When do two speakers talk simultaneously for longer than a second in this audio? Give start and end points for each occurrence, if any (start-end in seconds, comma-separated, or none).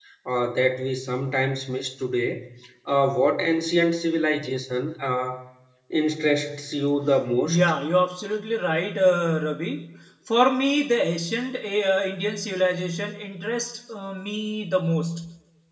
none